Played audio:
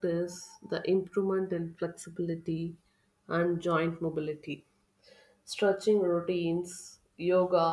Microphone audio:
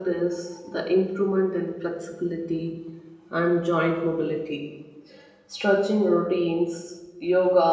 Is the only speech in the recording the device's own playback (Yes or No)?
Yes